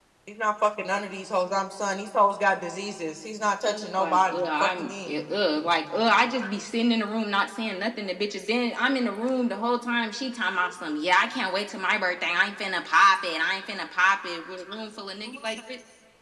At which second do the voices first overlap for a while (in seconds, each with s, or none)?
3.6 s